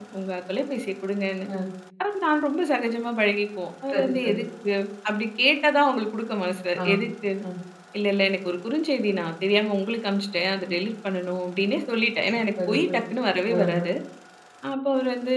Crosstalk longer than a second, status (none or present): none